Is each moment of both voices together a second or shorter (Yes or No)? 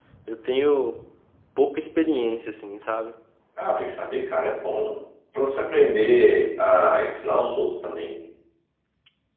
Yes